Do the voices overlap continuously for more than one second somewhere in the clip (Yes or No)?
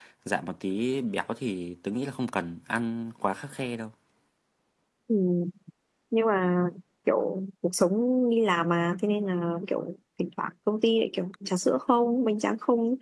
No